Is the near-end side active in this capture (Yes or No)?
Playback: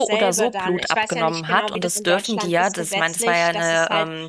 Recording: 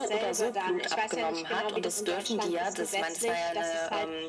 No